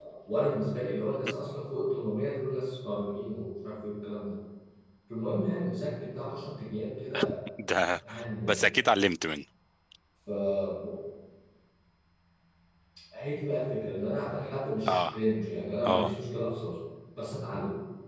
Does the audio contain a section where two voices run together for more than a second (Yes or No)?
No